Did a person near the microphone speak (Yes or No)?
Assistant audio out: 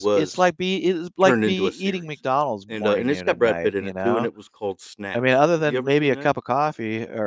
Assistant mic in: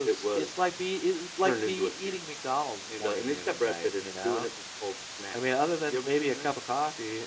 No